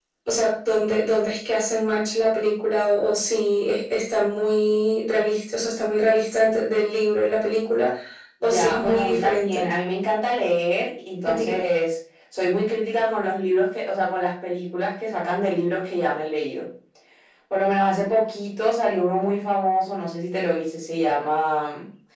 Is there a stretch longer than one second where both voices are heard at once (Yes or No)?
Yes